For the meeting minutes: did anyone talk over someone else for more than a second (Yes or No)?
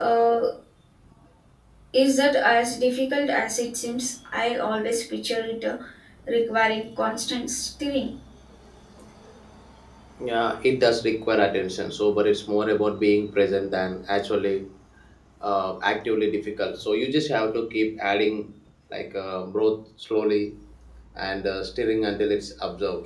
No